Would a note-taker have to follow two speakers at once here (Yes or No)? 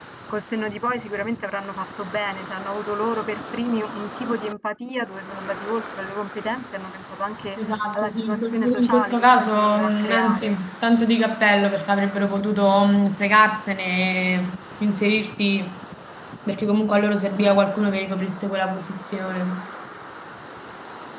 Yes